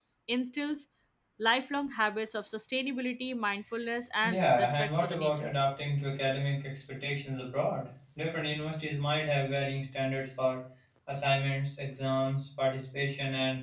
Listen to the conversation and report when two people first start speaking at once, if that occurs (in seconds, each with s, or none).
4.2 s